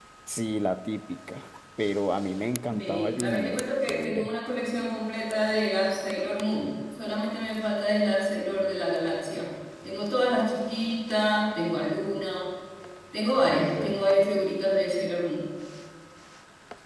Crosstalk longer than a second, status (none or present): present